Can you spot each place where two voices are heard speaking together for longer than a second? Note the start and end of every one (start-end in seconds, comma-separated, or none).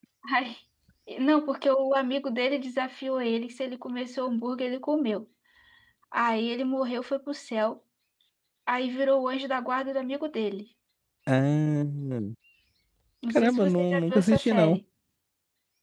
13.3-14.8